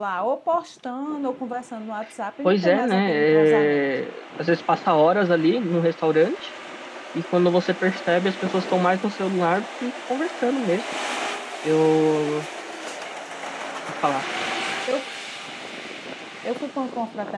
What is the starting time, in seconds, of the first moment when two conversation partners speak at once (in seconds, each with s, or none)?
2.4 s